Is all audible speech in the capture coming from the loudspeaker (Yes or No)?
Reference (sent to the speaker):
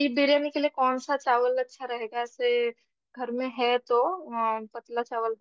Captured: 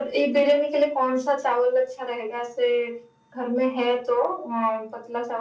Yes